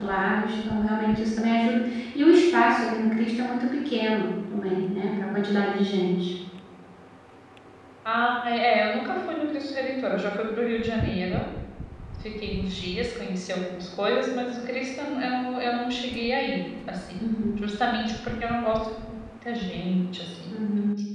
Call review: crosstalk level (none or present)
none